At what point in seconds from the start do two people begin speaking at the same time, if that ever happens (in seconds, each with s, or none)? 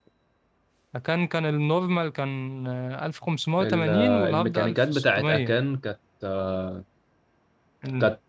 3.6 s